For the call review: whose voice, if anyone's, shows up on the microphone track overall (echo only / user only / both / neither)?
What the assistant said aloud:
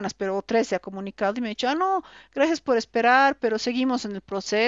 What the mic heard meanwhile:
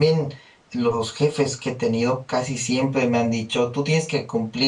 user only